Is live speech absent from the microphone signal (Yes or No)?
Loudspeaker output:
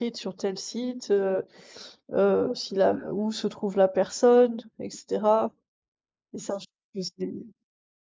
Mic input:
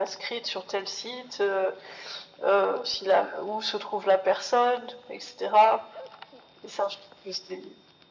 Yes